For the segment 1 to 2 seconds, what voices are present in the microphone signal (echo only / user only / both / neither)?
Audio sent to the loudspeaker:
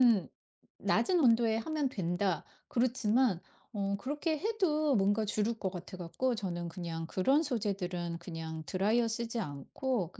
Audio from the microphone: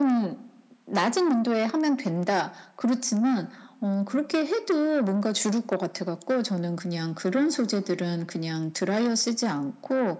echo only